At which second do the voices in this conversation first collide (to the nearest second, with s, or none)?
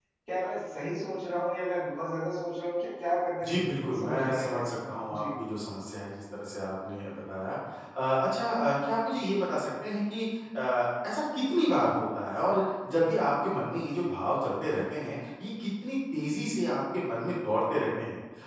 3 s